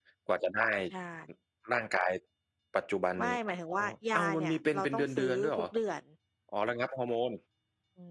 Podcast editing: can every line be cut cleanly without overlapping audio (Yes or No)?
No